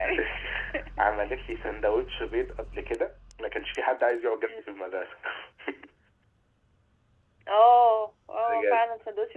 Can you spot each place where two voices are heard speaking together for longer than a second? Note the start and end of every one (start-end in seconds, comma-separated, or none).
none